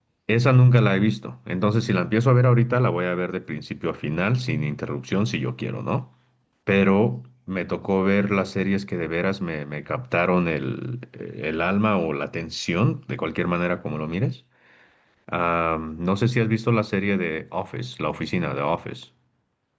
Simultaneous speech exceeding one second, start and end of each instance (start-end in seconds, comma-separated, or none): none